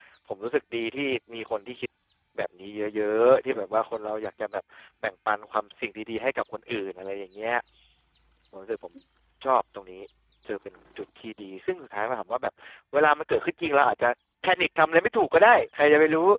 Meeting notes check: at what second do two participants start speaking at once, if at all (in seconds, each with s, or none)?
none